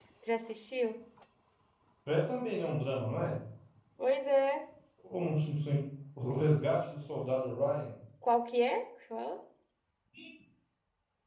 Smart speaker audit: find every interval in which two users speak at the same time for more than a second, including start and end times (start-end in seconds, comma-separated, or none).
none